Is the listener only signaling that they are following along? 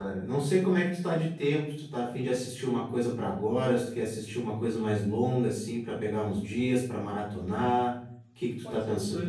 No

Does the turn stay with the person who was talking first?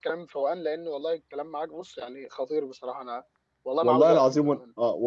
No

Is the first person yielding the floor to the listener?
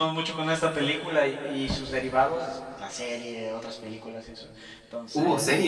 No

